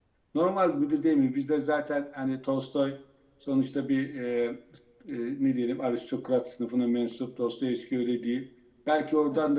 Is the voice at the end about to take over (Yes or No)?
No